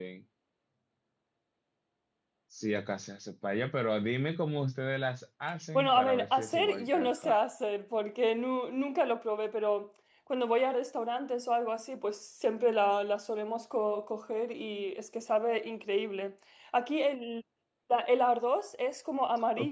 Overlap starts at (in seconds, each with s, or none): 5.8 s